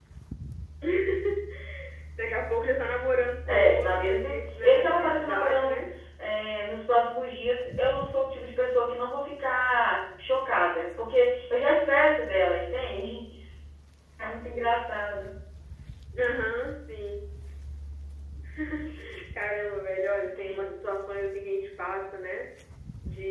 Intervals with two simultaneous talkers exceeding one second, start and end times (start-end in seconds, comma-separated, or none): 3.5-5.8